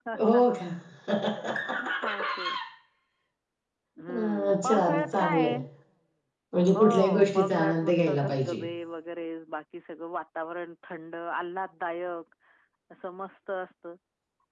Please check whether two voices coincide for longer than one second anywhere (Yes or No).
Yes